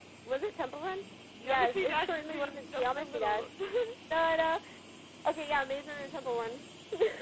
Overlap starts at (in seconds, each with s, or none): 1.4 s